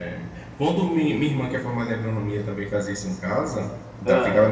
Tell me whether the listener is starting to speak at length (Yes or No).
No